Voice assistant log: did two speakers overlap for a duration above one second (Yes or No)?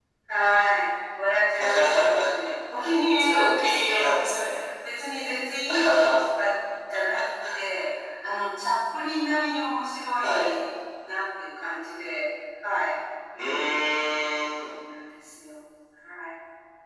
Yes